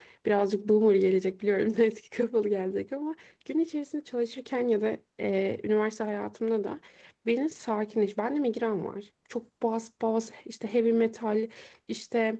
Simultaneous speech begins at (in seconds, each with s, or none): none